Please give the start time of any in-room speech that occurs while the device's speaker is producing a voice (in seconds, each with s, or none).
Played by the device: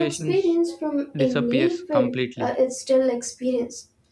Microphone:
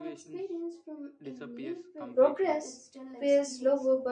2.1 s